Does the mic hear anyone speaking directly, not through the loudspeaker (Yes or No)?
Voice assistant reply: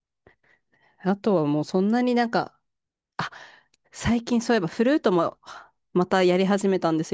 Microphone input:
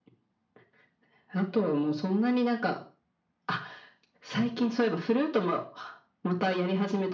No